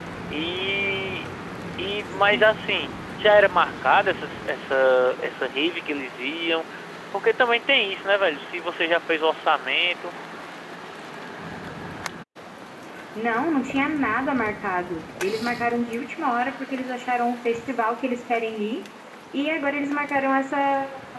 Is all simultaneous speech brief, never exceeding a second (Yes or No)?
Yes